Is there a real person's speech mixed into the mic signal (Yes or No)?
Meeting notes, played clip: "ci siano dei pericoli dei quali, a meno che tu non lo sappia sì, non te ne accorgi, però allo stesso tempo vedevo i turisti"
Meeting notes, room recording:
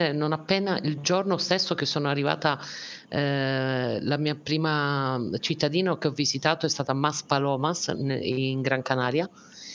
Yes